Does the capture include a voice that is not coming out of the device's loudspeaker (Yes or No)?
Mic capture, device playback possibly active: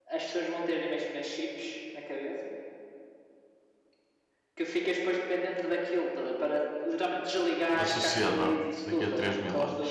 Yes